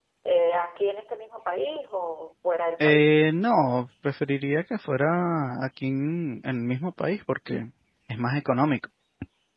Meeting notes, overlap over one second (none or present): none